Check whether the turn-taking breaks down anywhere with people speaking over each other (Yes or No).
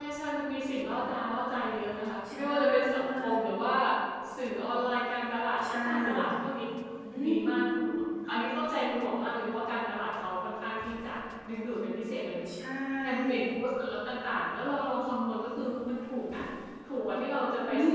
Yes